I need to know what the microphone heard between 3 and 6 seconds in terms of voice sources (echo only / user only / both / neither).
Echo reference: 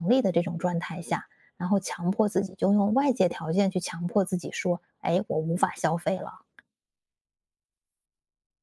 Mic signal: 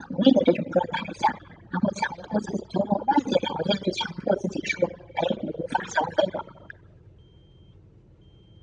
echo only